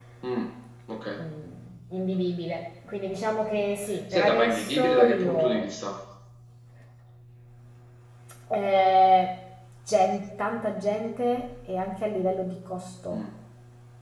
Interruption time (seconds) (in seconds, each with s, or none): 4.1 s